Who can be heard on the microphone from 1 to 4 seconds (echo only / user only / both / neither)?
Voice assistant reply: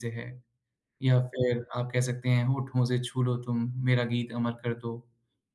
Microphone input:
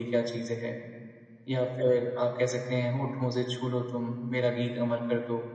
echo only